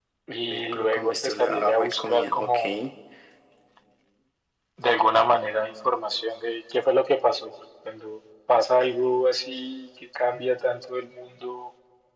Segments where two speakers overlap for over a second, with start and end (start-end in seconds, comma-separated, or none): 0.5-2.6